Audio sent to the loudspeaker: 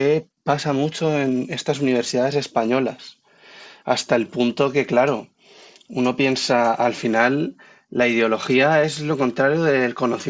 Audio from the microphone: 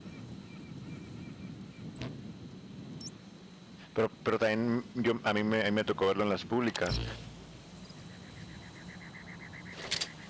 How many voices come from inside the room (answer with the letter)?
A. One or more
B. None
A